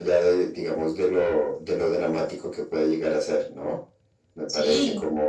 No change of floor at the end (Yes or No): Yes